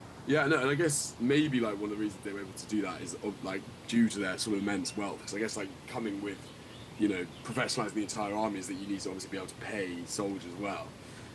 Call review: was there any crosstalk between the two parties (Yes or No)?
No